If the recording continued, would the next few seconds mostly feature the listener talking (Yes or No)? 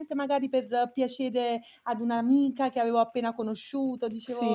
Yes